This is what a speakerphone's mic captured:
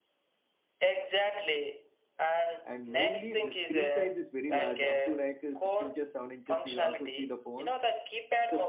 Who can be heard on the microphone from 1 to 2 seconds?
echo only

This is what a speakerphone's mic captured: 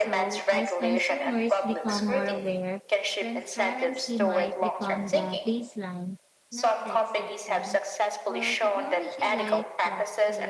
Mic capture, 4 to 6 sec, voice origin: both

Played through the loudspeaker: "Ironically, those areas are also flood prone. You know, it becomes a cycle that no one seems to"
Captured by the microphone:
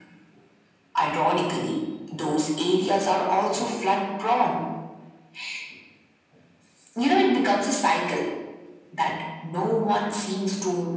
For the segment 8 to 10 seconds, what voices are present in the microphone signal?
echo only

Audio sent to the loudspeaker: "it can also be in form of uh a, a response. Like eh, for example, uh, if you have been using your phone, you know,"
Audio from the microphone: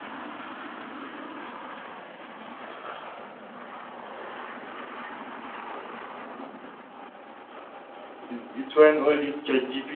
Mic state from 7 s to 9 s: user only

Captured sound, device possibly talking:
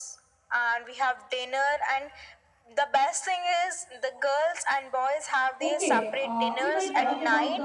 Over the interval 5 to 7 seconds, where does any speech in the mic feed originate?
both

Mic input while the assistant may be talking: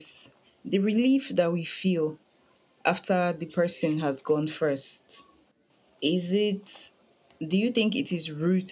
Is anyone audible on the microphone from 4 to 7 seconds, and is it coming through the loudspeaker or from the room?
user only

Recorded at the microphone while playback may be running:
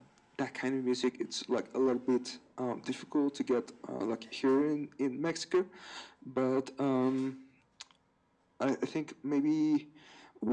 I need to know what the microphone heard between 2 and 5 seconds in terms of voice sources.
echo only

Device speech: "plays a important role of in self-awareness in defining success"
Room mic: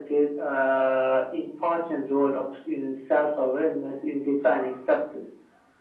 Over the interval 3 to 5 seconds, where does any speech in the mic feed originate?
echo only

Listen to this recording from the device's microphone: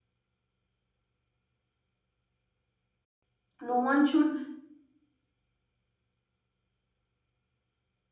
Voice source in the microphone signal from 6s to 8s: neither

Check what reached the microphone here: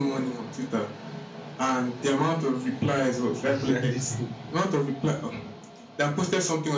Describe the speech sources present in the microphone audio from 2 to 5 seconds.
both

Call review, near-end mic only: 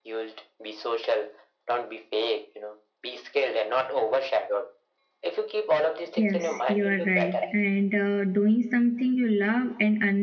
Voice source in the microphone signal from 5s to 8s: both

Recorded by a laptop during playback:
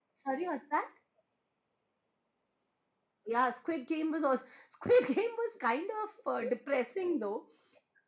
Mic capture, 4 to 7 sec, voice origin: echo only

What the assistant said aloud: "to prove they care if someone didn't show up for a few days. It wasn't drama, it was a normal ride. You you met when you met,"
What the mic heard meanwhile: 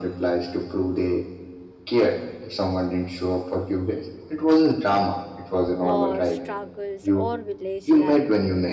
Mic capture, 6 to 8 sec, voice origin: both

